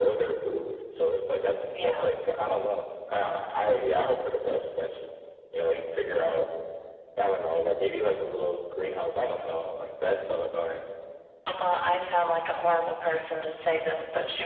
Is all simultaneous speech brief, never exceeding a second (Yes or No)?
Yes